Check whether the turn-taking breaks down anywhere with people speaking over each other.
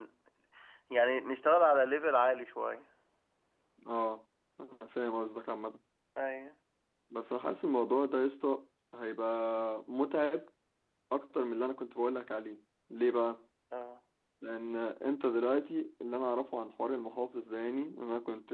No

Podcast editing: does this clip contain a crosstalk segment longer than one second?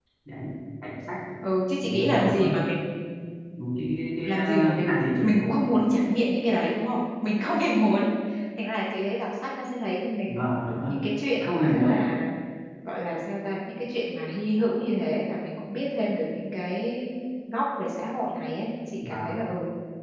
Yes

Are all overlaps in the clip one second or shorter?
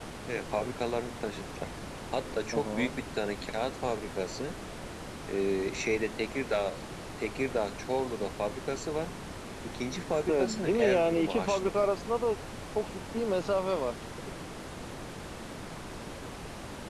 No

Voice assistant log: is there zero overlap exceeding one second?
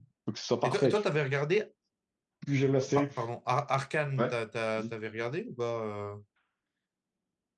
Yes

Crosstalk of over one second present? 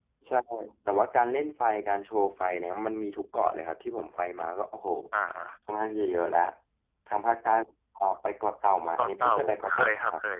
Yes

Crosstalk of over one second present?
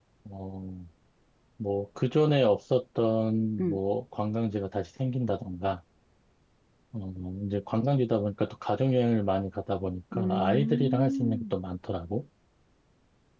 Yes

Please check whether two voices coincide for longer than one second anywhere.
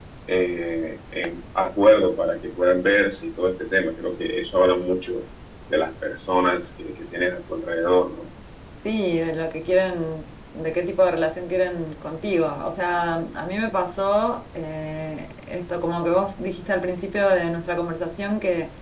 No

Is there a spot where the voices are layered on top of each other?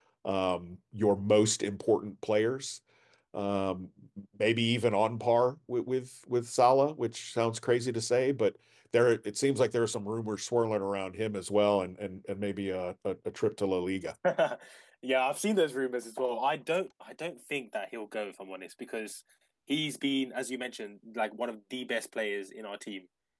No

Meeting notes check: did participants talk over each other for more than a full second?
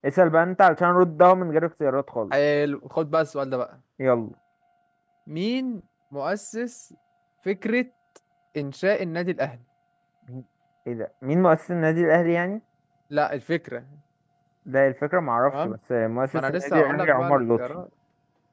Yes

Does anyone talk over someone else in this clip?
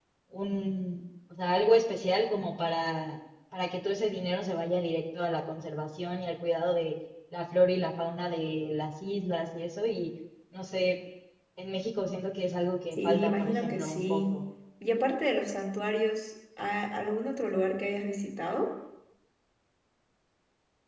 Yes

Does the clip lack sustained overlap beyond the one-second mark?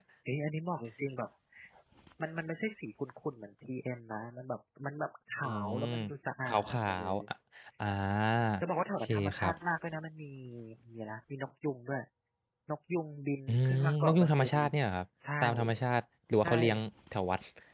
No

